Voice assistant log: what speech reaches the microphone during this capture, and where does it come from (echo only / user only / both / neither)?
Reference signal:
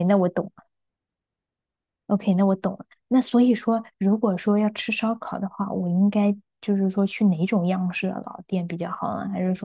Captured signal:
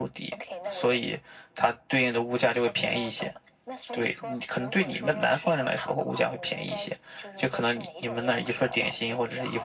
both